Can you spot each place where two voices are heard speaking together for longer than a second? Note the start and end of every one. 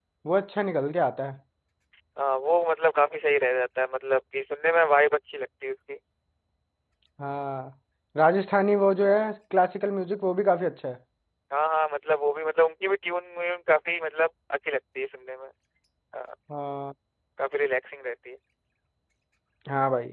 none

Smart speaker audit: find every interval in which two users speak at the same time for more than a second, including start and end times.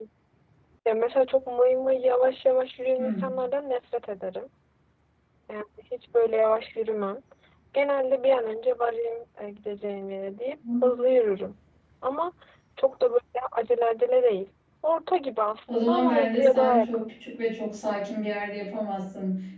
15.7-17.1

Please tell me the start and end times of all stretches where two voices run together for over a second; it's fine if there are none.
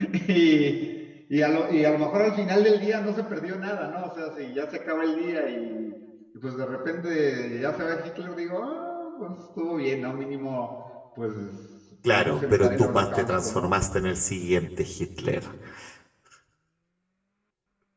12.1-13.7

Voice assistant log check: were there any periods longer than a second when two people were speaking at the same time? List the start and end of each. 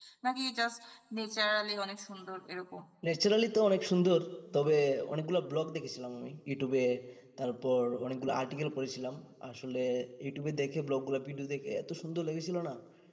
none

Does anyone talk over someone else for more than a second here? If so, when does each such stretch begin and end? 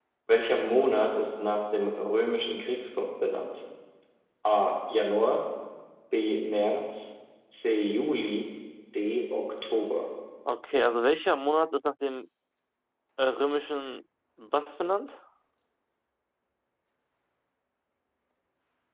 none

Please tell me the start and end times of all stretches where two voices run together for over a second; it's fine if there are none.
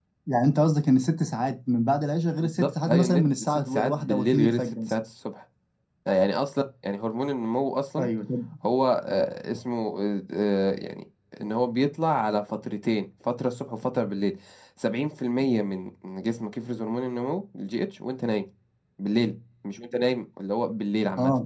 2.6-5.0

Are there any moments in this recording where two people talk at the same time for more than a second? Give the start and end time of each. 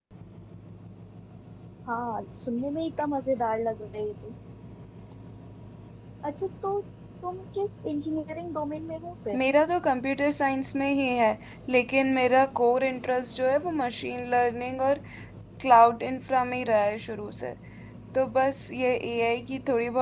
none

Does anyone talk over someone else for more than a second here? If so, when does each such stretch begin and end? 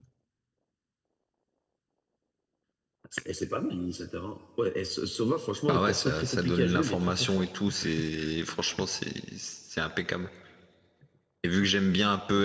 5.7-7.5

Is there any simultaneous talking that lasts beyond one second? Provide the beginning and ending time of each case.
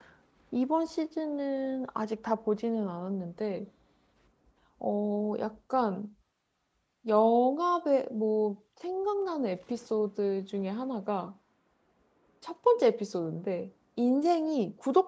none

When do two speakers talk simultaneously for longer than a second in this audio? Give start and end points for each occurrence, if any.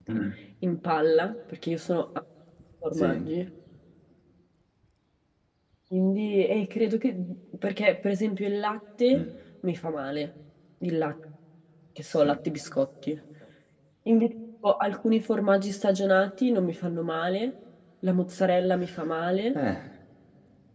none

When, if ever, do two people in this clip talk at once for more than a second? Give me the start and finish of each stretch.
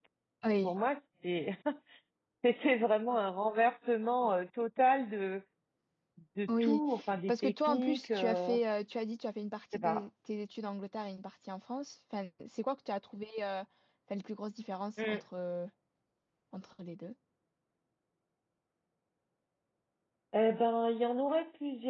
7.3-8.6

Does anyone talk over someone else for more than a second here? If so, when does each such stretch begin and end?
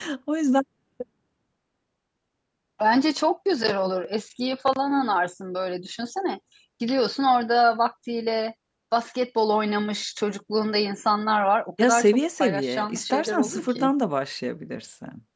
11.8-13.9

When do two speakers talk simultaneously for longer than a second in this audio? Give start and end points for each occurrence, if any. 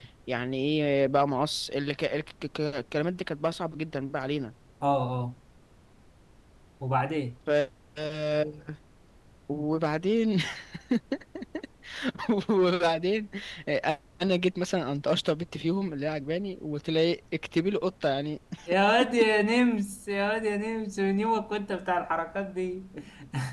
none

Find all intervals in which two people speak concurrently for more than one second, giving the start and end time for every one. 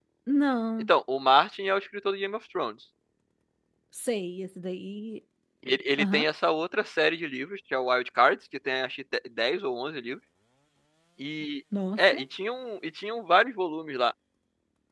none

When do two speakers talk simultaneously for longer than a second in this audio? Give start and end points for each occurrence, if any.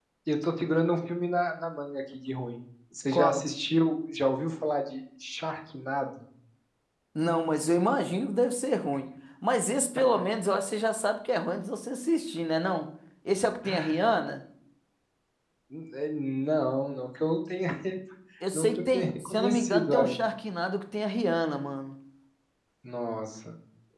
18.5-20.1

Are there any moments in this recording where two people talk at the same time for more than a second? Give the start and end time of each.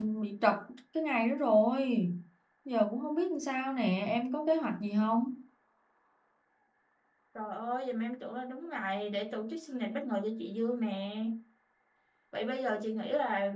none

